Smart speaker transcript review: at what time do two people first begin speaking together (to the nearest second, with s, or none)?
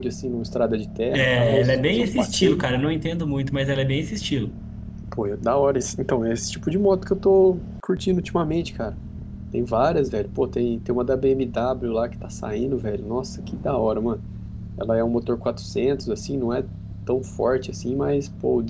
1 s